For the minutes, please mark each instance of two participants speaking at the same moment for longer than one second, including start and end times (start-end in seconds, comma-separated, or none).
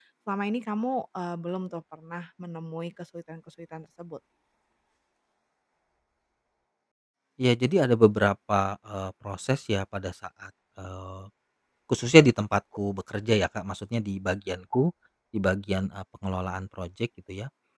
none